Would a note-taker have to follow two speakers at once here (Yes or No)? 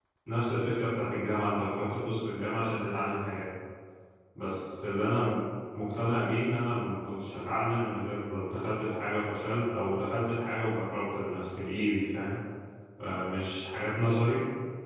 No